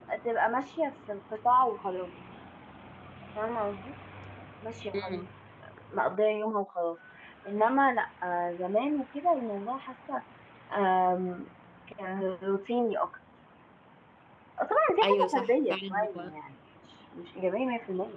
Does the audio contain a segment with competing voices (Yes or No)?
Yes